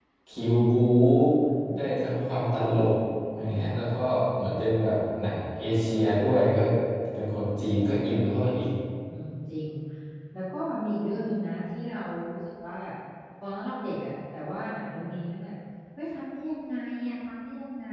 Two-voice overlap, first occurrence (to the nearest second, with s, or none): none